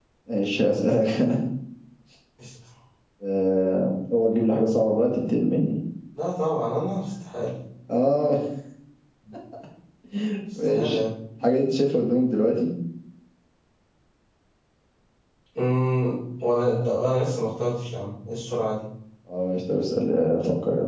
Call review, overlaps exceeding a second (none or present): none